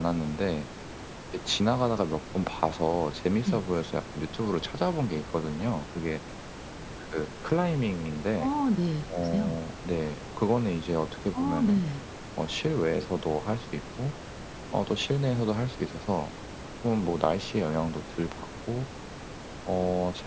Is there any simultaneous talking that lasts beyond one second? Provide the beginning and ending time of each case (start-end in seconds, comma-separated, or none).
none